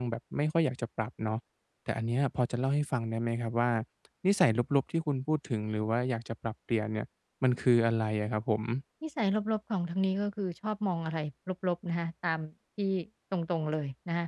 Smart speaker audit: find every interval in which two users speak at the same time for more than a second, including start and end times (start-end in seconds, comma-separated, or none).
none